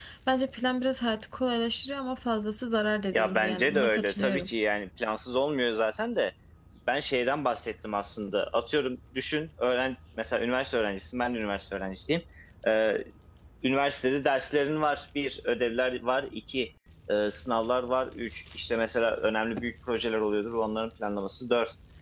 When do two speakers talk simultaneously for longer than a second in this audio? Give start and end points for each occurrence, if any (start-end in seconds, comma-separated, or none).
3.1-4.5